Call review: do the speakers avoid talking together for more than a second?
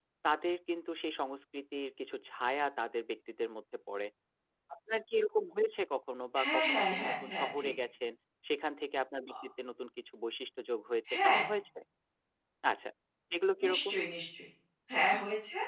No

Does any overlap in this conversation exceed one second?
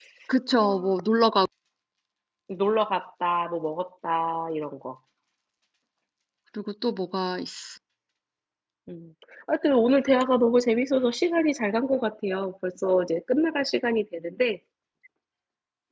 No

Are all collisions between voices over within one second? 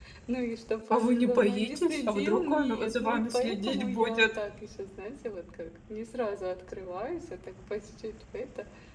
No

